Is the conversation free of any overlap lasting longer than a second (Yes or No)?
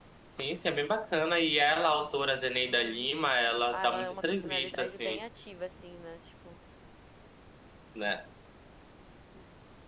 No